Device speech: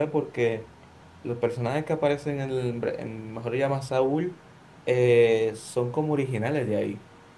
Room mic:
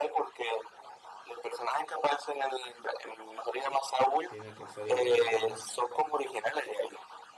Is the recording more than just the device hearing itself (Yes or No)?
Yes